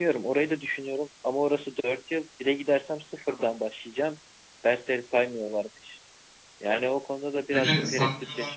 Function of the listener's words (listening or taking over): taking over